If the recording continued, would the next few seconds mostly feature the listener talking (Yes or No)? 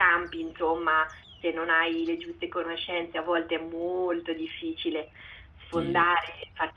No